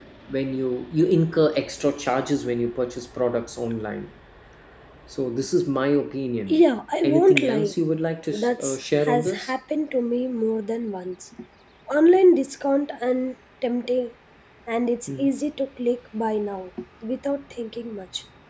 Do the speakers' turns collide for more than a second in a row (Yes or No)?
Yes